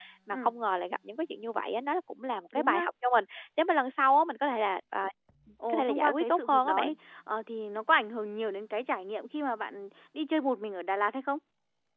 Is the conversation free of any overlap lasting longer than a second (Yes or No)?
No